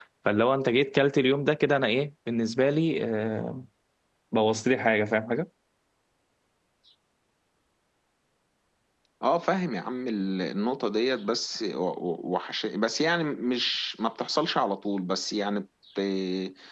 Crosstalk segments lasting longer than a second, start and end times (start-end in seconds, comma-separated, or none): none